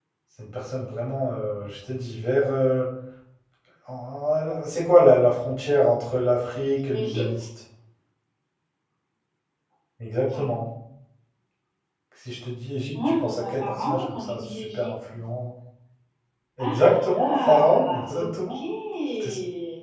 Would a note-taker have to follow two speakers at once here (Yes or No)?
Yes